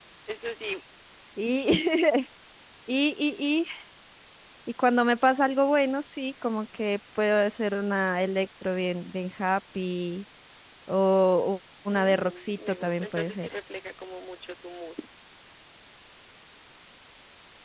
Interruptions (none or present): present